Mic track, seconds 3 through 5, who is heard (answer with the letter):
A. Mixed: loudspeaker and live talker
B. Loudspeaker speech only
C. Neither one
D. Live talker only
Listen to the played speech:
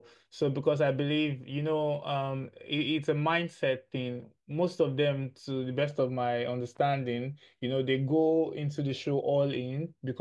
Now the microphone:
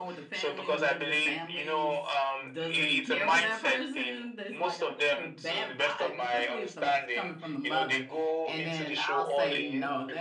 A